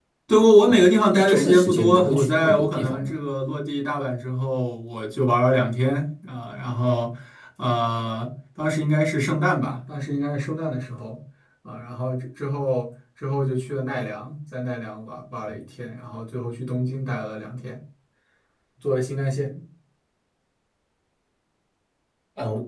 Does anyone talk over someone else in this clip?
Yes, from 0.7 s

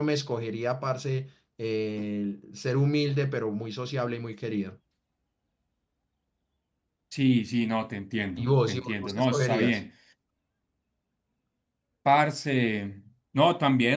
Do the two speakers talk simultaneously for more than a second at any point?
Yes, from 8.4 s

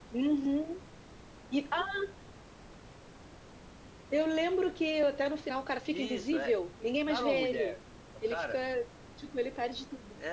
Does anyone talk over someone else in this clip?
Yes, from 5.9 s

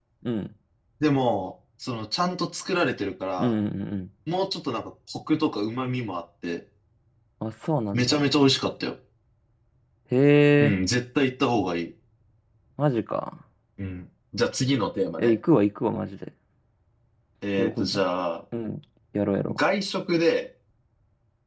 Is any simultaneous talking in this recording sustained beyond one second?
No

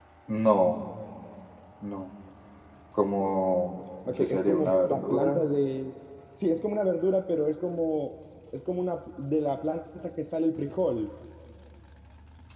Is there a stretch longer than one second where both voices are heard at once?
Yes, from 4.0 s

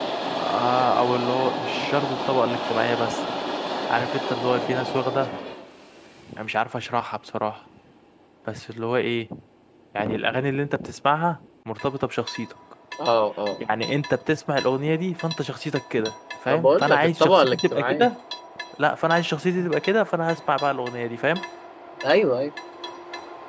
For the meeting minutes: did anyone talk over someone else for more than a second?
Yes, from 16.5 s

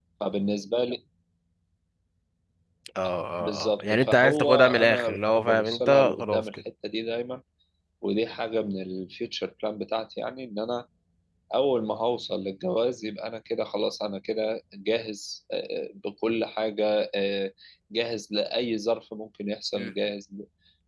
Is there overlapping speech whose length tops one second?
Yes, from 3.4 s

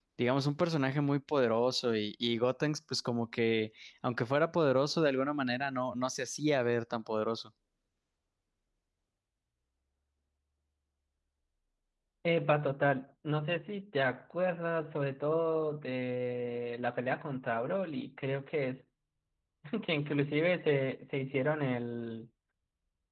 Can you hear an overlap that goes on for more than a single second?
No

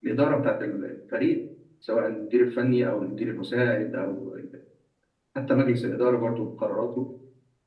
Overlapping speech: No

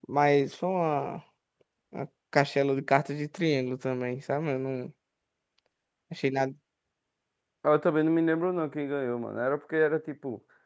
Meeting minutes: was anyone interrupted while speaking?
No

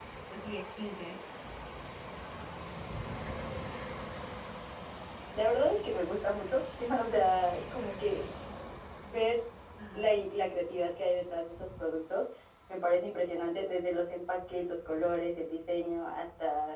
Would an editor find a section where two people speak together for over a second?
No

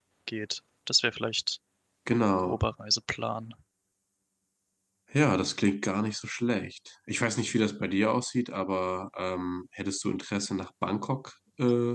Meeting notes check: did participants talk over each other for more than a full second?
No

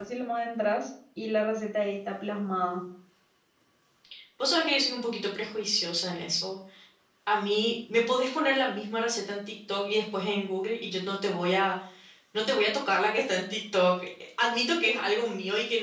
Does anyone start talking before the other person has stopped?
No

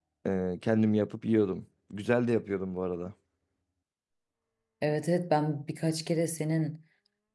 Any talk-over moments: No

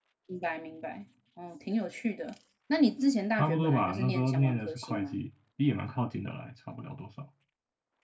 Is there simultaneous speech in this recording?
Yes, from 3.4 s

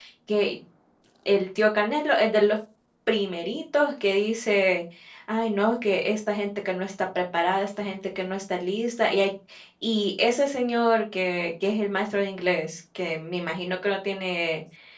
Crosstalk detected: No

